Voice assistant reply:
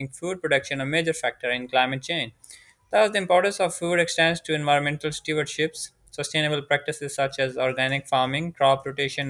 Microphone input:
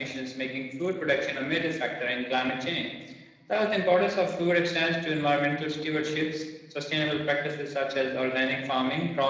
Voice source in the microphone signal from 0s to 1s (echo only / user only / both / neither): echo only